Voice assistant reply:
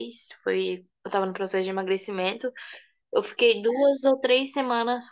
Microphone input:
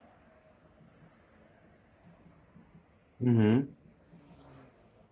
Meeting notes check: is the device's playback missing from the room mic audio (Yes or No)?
Yes